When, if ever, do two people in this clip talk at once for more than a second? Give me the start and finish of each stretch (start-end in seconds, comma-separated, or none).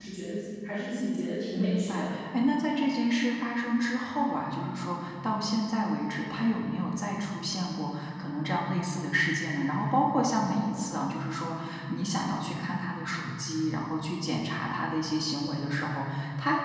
none